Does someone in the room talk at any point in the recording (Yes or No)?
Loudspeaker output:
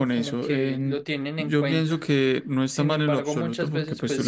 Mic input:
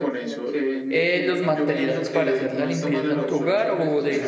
Yes